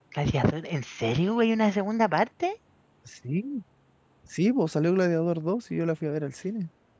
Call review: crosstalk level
none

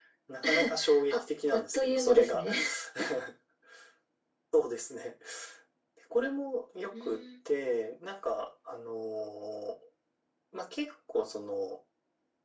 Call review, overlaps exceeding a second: present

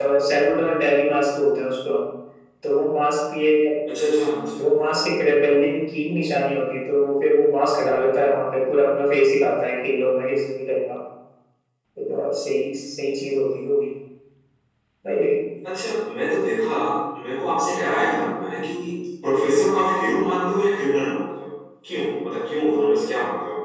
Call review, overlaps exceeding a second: none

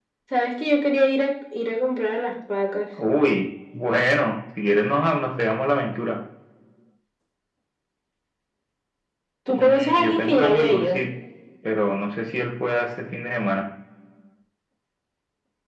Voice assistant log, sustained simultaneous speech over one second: present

